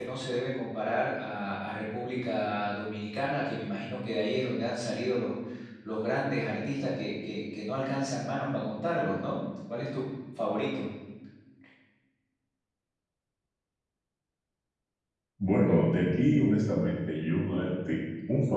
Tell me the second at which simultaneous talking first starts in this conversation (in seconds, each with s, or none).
none